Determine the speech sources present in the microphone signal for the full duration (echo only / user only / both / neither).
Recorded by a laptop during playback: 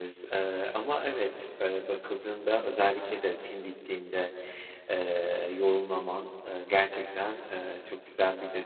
user only